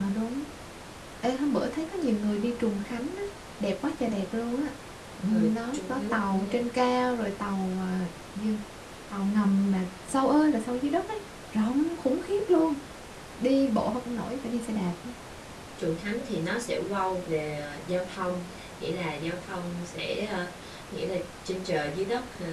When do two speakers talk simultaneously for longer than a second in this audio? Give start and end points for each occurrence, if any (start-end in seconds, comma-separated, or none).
5.3-6.6